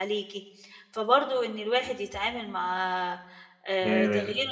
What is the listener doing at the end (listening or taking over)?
listening